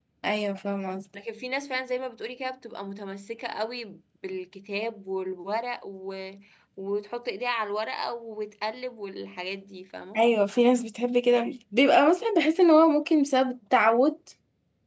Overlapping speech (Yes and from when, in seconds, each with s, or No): No